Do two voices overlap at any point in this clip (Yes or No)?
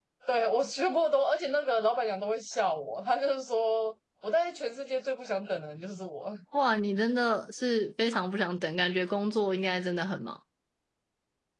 No